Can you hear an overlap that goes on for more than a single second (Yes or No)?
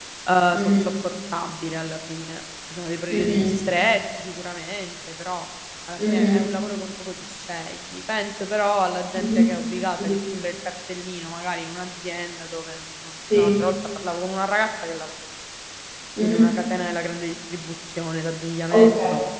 No